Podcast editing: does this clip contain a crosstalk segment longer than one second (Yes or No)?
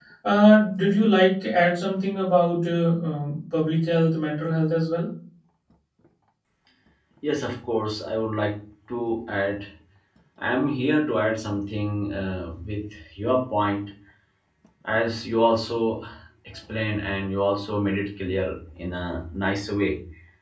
No